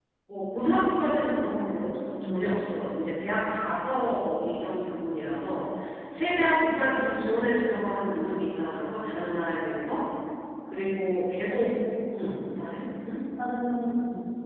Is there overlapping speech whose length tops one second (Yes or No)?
No